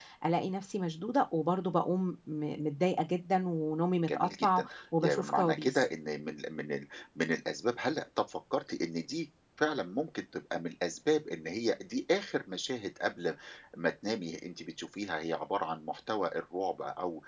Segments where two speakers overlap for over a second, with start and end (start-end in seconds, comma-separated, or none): 4.0-5.8